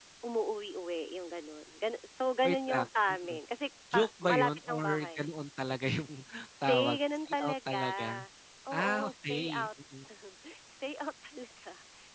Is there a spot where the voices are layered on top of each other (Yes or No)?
Yes